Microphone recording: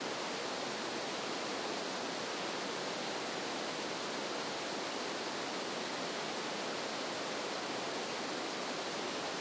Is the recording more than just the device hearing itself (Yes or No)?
No